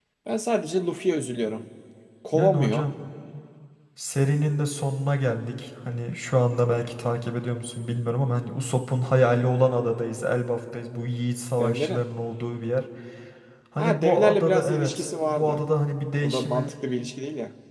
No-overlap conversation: No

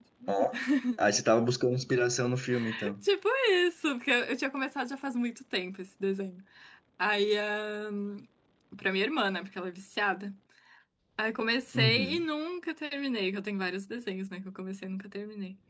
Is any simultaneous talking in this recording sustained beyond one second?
No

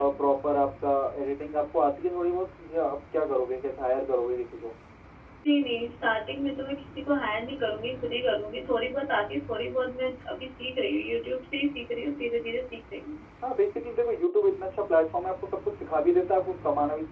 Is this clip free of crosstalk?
Yes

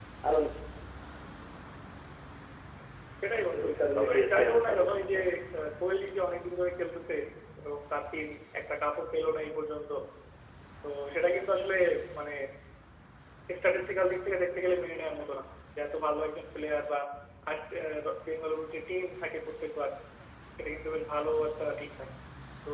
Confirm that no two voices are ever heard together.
No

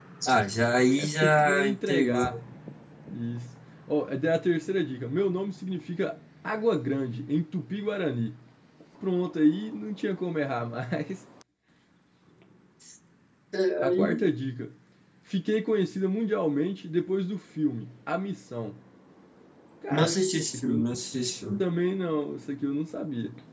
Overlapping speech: Yes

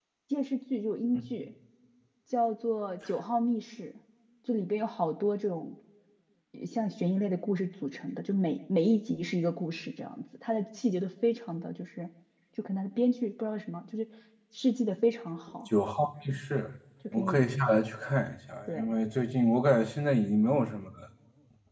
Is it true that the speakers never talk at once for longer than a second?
Yes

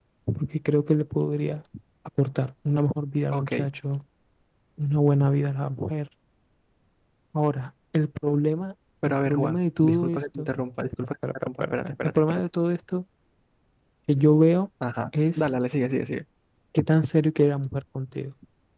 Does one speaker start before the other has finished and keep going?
Yes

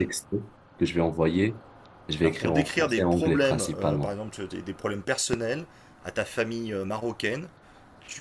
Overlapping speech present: Yes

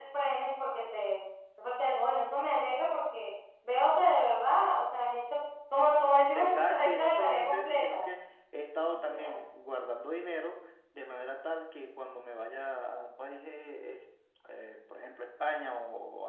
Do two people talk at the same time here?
Yes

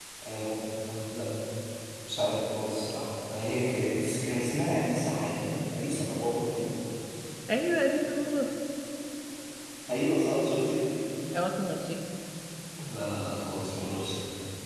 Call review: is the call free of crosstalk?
Yes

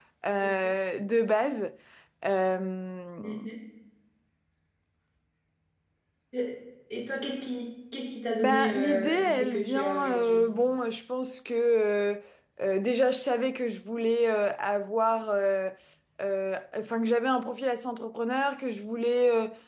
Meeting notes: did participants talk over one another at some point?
Yes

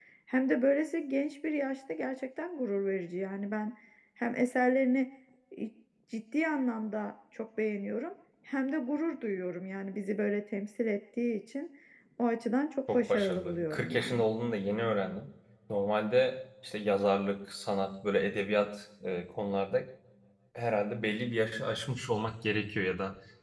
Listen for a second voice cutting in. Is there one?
Yes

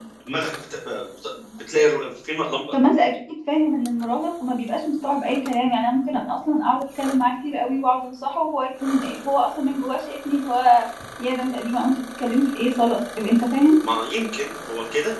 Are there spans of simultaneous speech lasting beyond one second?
No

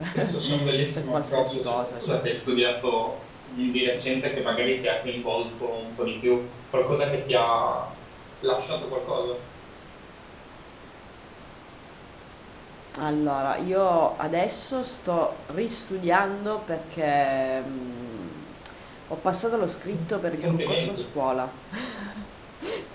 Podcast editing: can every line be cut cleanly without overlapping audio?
No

